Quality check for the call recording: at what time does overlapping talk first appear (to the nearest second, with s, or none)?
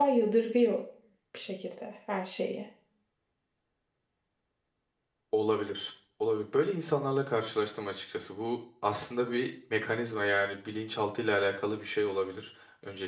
none